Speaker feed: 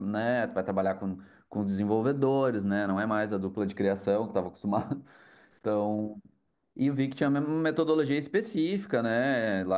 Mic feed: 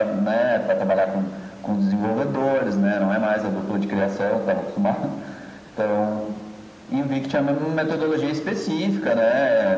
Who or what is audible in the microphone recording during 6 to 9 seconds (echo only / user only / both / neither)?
echo only